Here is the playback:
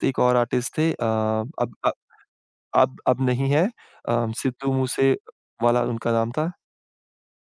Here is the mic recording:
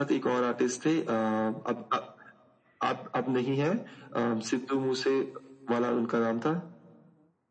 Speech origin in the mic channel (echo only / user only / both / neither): echo only